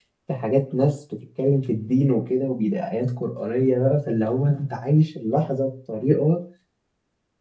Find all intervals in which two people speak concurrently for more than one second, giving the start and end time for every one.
none

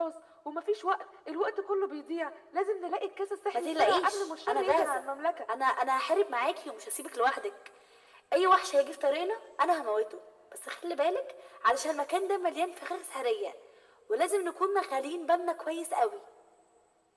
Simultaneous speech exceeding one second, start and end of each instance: 3.5-5.0

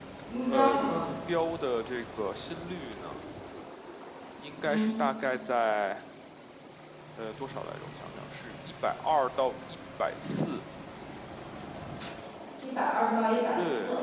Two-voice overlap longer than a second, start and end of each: none

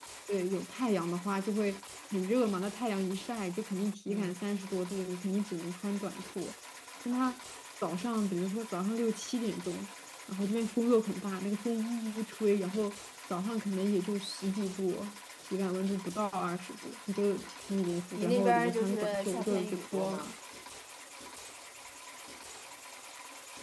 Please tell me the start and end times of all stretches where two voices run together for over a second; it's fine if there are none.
18.2-20.3

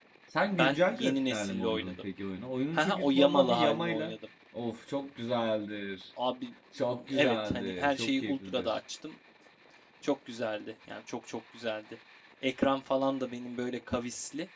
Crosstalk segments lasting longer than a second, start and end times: 0.6-2.0, 2.7-4.2, 7.1-8.8

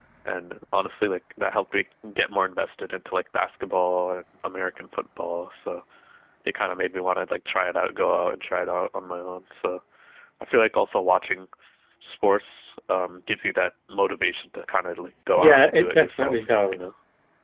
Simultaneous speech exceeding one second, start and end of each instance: 15.4-16.8

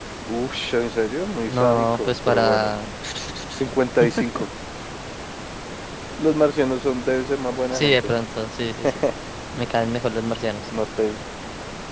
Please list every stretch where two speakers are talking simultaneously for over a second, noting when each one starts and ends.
1.5-2.7

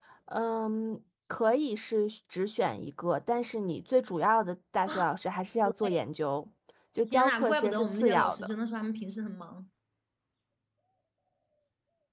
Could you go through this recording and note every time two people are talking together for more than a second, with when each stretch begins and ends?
7.1-8.5

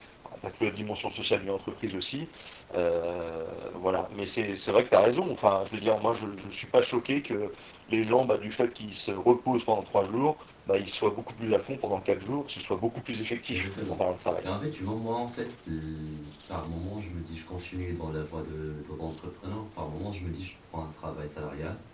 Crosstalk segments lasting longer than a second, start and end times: none

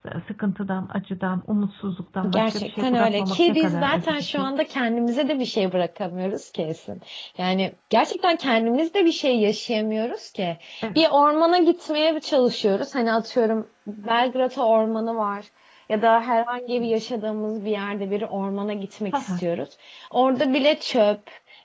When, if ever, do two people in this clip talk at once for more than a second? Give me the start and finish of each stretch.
2.3-4.5

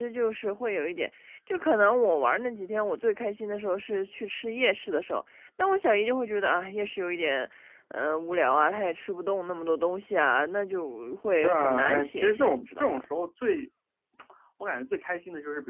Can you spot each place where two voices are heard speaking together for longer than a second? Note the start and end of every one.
11.4-13.1

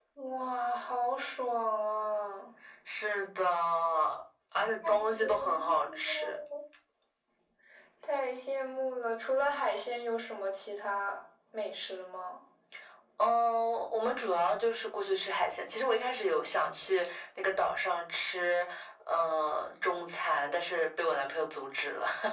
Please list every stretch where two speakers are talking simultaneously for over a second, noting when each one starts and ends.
4.8-6.4

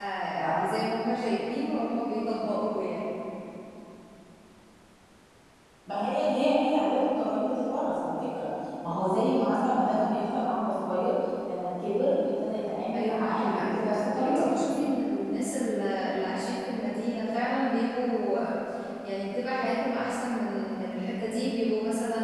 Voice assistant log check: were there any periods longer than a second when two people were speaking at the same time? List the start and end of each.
12.9-14.5

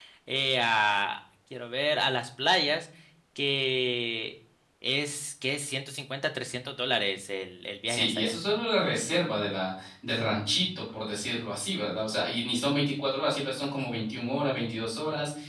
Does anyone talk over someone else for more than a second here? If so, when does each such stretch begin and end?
none

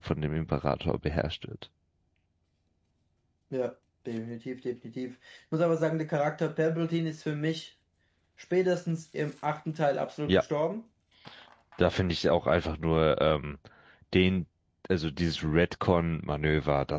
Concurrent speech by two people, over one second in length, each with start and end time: none

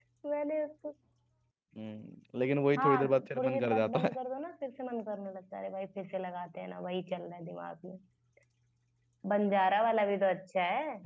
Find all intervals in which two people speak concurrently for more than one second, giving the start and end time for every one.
2.8-4.2

